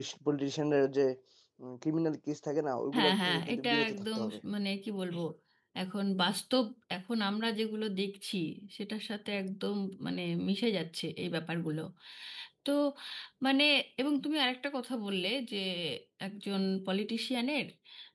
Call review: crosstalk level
present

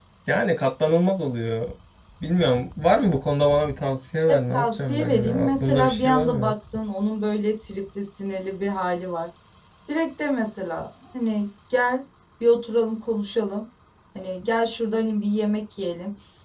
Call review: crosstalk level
present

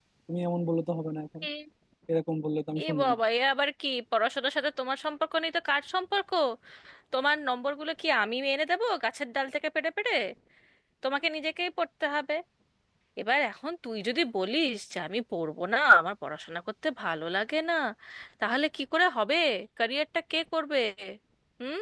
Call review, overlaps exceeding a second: none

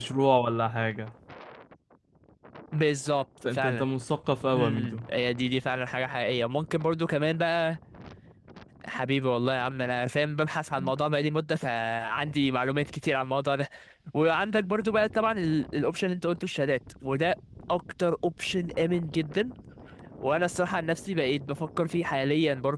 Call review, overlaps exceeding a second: none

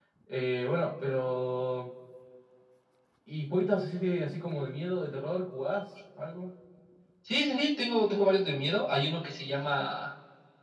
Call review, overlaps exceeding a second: none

